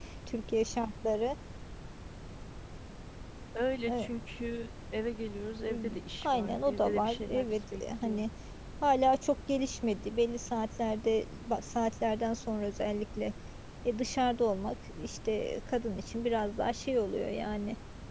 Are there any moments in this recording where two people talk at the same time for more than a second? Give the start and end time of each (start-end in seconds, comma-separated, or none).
5.7-8.2